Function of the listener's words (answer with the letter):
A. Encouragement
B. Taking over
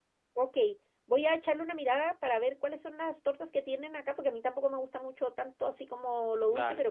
A